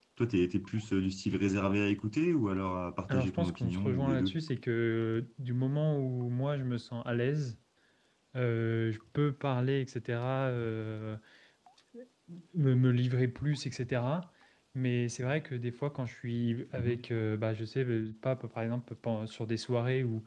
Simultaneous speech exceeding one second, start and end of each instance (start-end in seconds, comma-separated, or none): 3.1-4.4